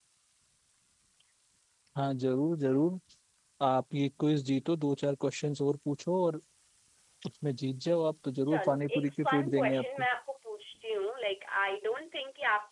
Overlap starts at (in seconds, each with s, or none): 8.5 s